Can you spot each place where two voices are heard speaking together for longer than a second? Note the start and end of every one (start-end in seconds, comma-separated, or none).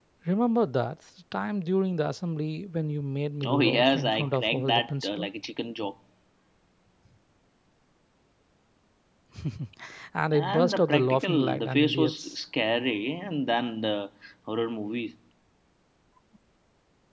3.5-5.3, 10.3-12.4